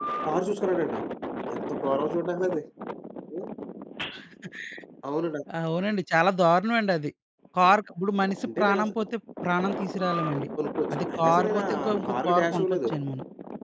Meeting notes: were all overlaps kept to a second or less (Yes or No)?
No